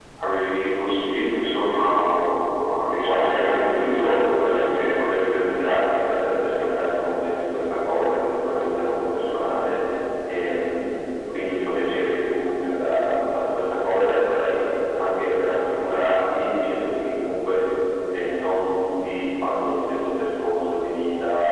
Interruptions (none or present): present